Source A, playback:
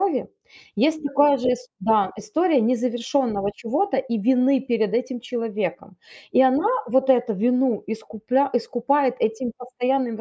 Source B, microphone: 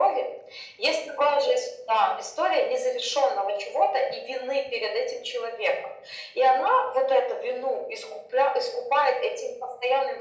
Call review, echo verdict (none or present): present